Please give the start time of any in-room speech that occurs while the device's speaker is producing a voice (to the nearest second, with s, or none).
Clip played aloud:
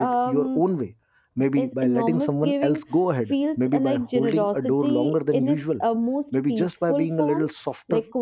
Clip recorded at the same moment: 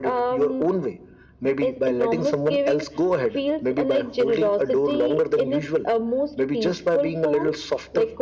none